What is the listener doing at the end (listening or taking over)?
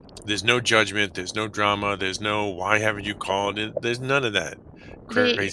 taking over